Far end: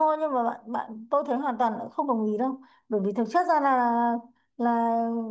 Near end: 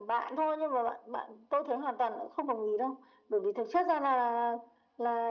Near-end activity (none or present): none